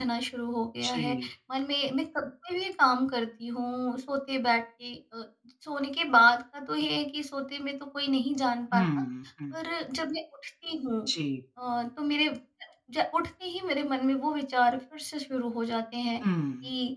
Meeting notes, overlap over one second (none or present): none